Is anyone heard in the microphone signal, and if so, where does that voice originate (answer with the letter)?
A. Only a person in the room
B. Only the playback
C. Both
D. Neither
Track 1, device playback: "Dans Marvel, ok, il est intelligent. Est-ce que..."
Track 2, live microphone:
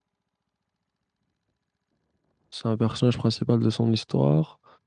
A